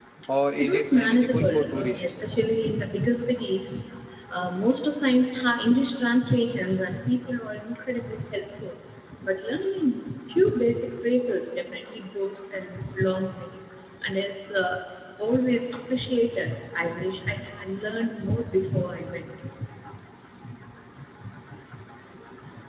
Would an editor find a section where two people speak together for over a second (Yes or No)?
Yes